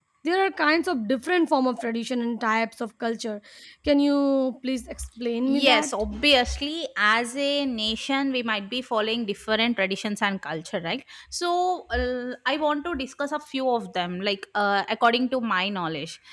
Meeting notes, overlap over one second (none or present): none